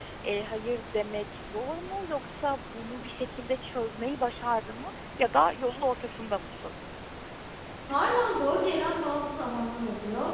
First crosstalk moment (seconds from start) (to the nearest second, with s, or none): none